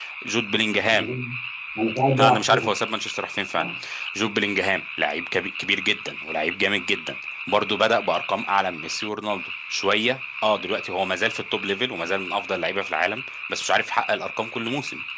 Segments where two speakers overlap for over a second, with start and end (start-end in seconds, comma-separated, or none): none